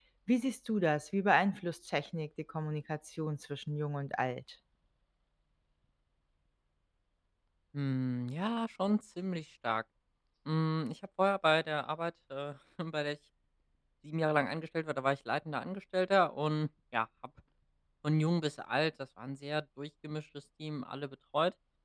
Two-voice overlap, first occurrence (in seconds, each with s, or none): none